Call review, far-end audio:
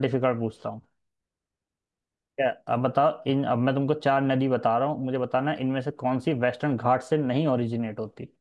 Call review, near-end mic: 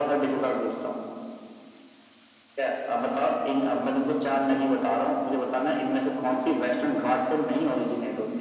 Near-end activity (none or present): none